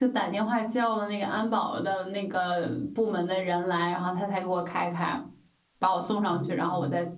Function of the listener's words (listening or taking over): listening